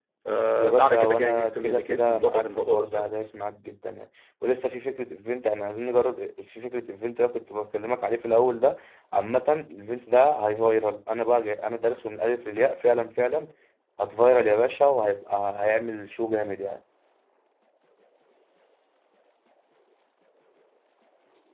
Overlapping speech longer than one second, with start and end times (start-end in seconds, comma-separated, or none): 0.6-3.0